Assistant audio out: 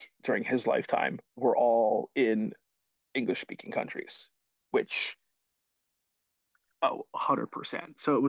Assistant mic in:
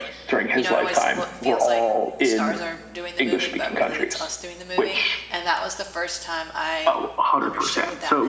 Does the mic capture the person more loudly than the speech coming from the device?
No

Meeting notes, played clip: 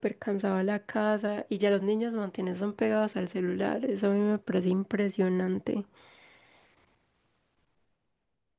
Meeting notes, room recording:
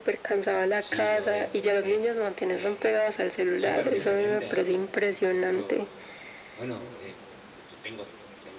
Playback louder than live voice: Yes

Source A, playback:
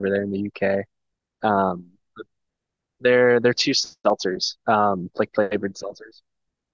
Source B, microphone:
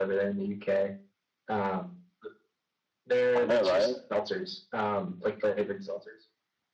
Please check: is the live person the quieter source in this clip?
No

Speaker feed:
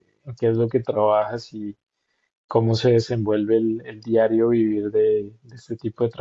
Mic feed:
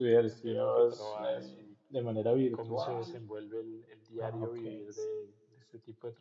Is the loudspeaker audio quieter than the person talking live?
Yes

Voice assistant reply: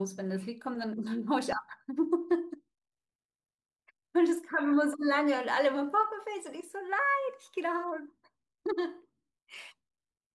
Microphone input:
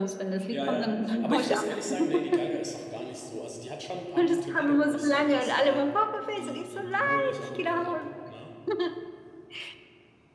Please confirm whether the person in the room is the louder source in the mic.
No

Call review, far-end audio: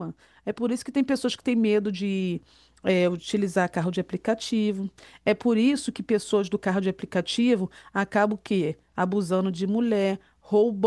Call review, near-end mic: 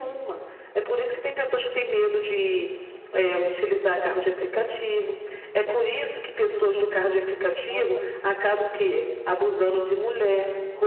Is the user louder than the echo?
No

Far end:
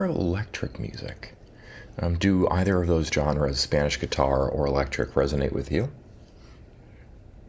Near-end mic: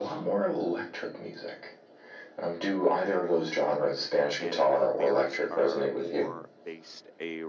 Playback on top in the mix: Yes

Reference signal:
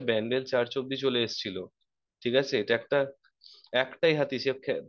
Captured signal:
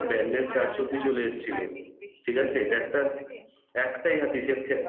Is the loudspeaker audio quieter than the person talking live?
No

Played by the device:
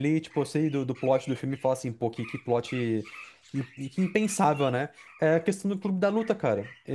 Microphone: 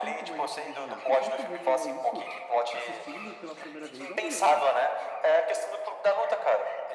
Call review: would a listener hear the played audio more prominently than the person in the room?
Yes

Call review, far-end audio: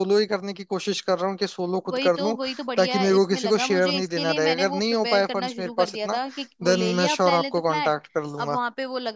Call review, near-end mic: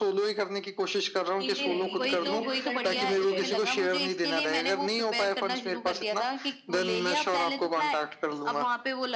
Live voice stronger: No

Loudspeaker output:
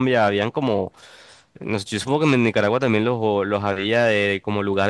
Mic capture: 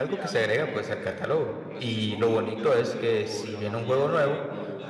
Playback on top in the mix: No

